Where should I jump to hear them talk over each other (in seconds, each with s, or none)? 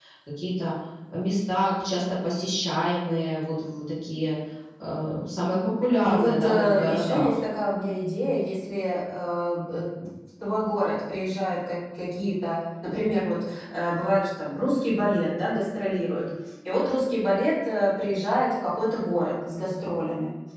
6.0 s